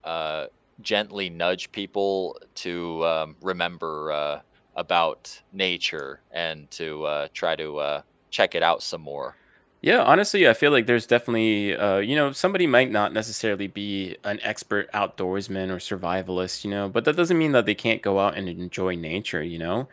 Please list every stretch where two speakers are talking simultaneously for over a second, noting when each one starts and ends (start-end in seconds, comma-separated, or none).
none